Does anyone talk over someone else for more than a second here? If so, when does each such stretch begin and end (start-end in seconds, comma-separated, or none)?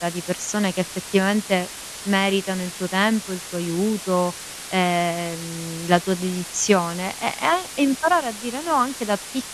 none